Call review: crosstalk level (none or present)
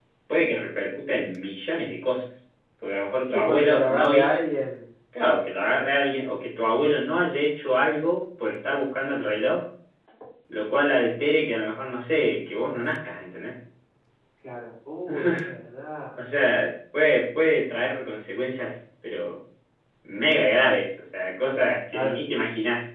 present